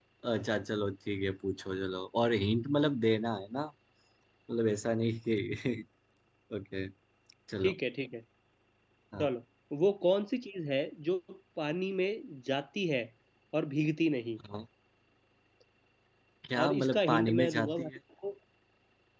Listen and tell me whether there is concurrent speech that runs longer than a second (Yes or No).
Yes